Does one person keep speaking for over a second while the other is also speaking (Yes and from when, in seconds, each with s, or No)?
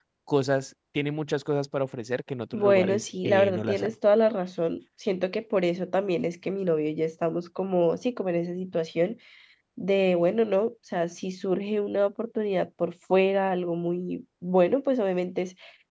Yes, from 2.5 s